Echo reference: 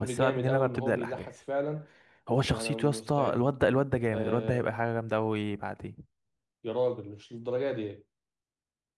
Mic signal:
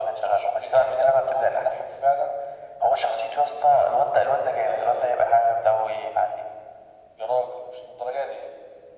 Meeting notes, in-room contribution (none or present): none